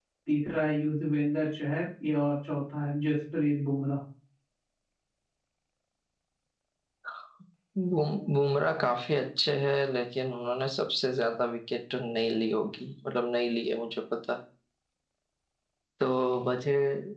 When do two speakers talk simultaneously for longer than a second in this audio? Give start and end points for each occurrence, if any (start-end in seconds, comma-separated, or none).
none